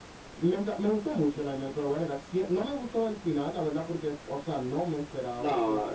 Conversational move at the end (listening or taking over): listening